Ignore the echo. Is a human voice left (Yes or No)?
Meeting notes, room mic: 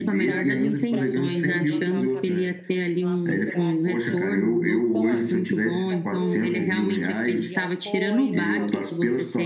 Yes